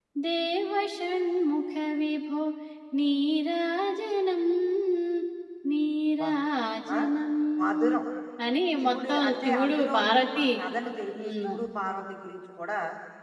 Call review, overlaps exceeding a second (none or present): present